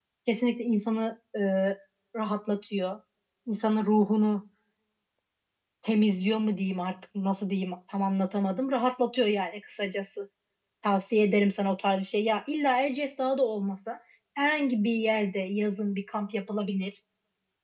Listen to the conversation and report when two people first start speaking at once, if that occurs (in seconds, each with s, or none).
none